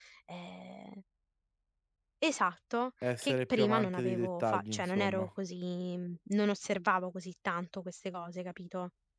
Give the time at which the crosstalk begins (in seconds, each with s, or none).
3.0 s